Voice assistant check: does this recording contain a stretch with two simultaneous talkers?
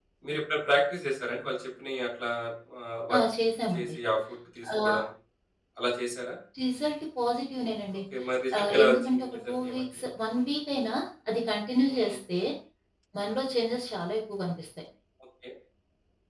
Yes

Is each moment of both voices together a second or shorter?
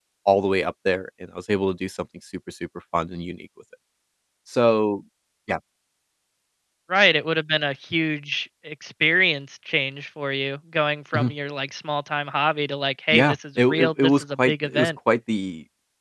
No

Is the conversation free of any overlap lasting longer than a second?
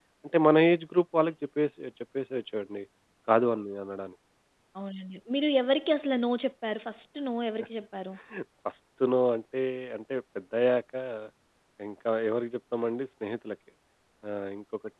Yes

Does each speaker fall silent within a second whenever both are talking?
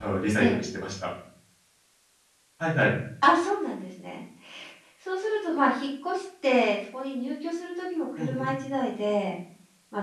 Yes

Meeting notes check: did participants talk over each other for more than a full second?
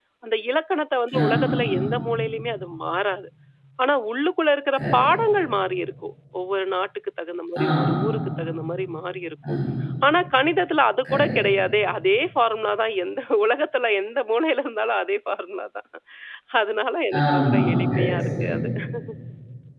Yes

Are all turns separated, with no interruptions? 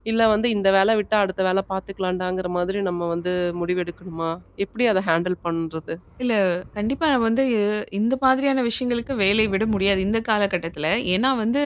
Yes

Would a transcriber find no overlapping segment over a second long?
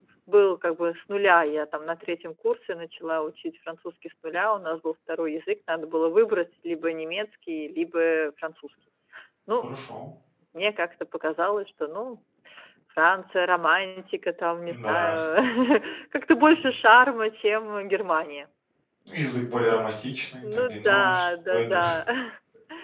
No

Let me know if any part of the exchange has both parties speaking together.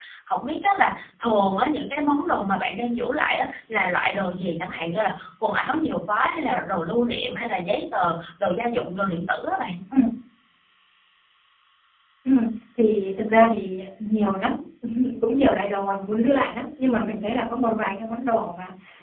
No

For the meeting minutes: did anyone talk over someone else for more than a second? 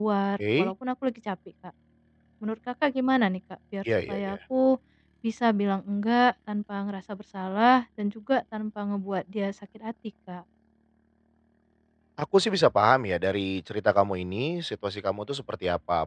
No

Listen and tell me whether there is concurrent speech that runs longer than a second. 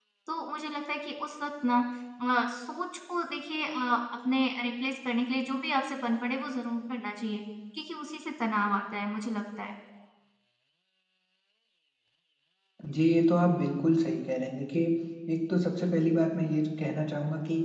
No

